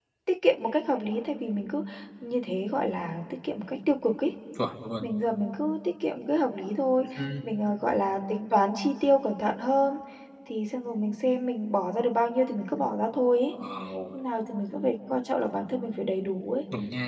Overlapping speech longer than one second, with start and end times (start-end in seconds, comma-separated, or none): none